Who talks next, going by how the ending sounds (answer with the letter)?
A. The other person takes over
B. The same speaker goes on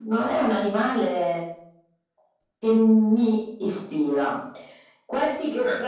B